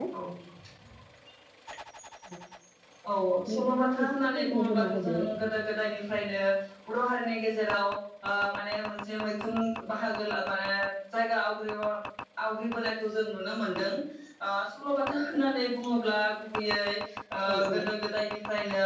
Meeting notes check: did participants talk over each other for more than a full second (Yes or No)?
Yes